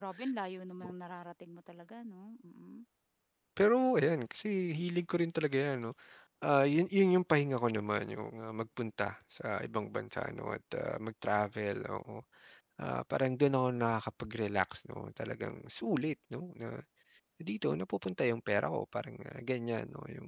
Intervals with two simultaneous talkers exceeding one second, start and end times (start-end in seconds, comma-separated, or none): none